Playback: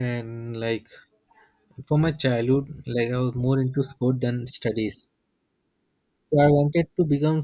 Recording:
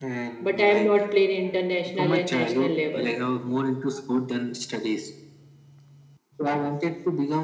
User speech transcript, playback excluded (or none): But I am not playing international and national level.